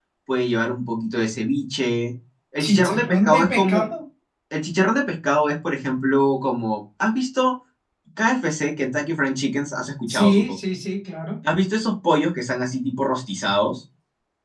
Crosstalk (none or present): present